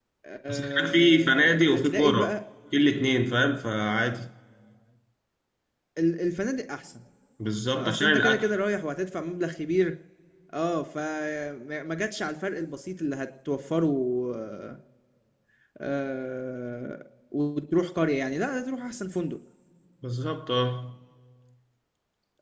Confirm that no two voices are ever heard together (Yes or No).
No